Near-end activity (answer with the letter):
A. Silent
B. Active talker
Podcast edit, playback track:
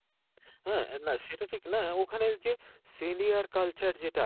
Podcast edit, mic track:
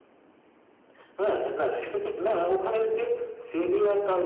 A